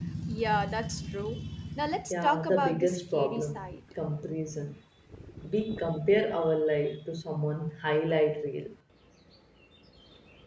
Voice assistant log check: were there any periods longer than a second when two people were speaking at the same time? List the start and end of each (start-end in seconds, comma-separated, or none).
2.1-3.8